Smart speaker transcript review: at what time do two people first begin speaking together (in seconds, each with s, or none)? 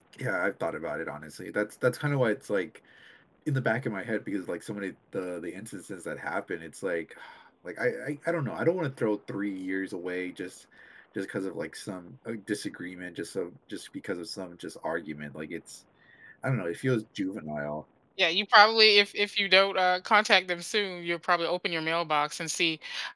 none